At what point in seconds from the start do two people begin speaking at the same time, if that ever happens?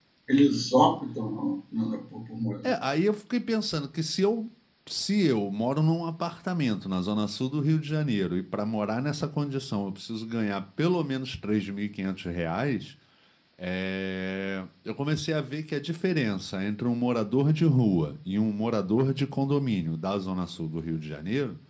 none

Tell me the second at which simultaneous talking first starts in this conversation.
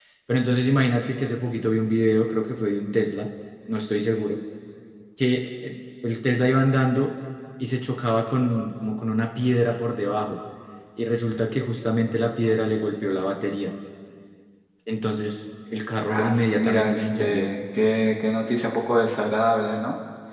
16.1 s

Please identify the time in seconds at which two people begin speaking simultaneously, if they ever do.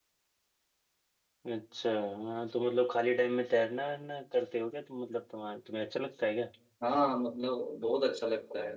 none

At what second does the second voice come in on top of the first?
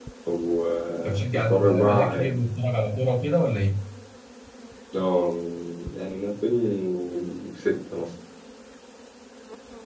1.0 s

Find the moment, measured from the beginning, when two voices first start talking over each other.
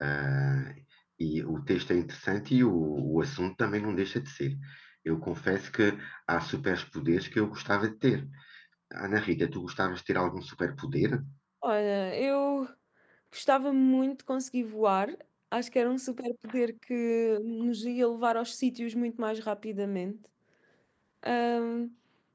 none

